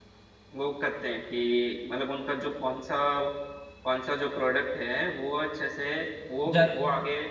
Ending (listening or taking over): listening